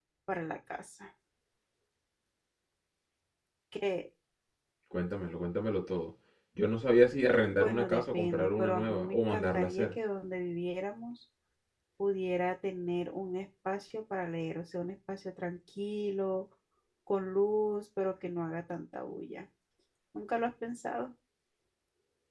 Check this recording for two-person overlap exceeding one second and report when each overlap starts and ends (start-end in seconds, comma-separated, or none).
7.4-9.9